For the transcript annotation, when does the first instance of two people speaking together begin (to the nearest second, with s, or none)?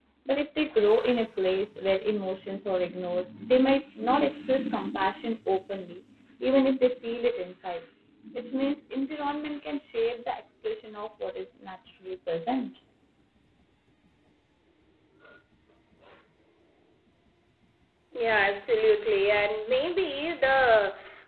none